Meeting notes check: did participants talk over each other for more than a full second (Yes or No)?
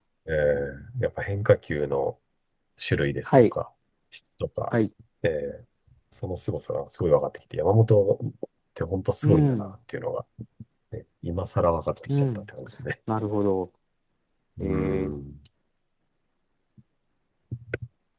No